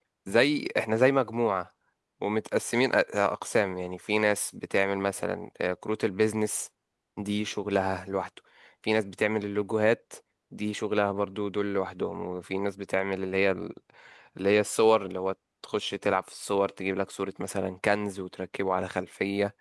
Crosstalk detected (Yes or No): No